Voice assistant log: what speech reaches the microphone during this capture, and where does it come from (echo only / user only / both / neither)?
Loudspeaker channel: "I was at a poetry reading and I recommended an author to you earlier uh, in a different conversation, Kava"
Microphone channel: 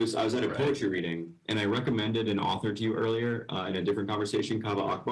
both